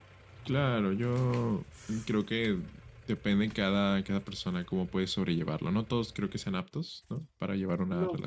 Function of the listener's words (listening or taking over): taking over